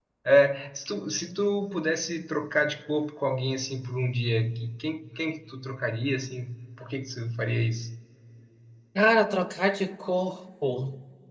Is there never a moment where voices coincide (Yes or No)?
Yes